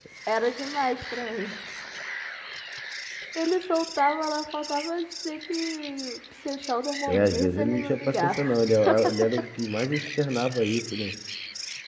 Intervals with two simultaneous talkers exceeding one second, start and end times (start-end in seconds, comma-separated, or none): 7.1-8.7